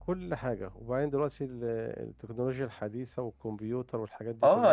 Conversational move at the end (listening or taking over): taking over